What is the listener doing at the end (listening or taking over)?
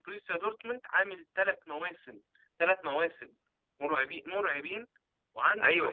taking over